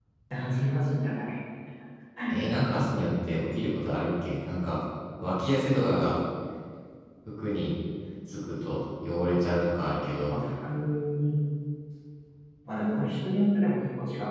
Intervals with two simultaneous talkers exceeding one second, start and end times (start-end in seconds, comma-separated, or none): none